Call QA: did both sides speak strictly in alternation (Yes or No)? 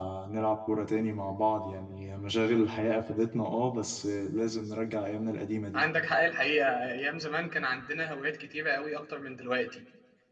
Yes